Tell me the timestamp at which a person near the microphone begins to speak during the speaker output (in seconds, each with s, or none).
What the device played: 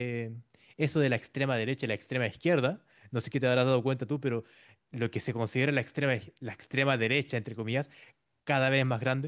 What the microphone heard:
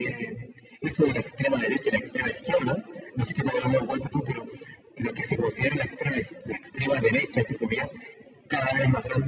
none